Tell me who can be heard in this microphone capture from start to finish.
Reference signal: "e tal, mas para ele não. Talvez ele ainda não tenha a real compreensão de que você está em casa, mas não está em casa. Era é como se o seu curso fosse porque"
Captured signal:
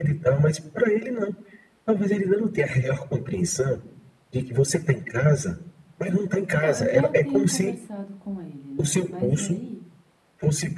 both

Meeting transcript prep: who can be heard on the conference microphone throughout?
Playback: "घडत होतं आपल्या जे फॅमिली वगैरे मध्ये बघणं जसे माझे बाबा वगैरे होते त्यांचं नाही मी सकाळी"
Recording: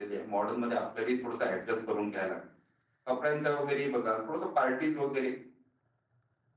user only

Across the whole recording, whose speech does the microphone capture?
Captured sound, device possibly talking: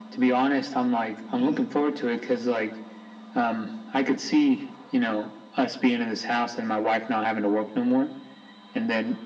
both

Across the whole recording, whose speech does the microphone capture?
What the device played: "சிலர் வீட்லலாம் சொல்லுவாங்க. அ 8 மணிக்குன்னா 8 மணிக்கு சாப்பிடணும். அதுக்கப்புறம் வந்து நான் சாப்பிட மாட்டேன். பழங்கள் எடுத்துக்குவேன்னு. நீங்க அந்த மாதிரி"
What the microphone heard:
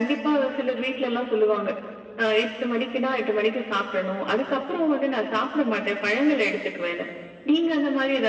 echo only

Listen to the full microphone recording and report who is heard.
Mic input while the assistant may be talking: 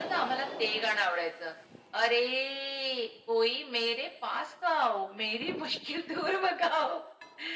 echo only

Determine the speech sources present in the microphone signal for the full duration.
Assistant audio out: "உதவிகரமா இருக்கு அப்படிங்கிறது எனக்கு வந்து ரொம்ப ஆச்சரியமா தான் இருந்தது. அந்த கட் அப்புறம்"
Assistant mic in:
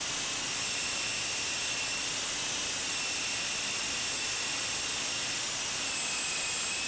neither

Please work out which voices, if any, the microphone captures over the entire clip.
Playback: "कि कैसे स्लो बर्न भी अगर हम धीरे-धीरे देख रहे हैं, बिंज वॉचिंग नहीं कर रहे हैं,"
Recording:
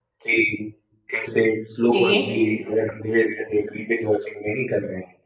both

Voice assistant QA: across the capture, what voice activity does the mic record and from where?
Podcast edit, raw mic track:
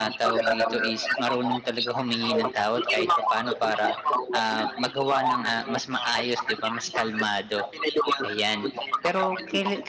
both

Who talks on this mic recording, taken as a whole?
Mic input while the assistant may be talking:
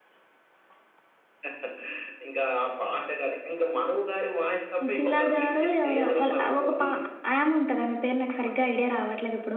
both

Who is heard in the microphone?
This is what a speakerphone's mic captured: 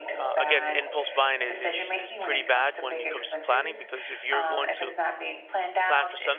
both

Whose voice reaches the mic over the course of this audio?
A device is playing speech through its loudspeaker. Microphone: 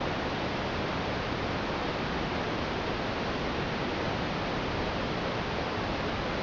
neither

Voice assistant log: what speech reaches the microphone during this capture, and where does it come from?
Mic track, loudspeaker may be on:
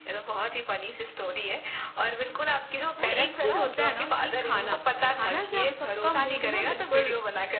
both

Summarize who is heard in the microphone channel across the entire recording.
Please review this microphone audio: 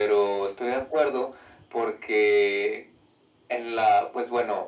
echo only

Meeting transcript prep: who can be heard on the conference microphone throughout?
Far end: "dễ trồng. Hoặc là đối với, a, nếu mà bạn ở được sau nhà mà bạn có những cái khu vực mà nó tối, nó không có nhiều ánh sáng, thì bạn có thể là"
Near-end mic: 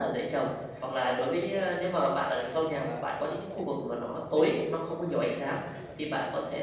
both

